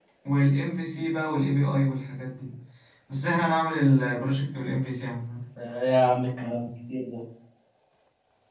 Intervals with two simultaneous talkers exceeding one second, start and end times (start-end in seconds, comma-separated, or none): none